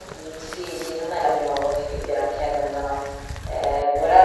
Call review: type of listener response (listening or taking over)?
listening